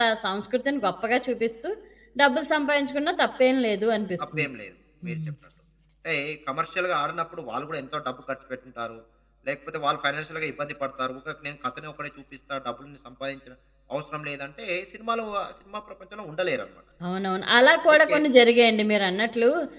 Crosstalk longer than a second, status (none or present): none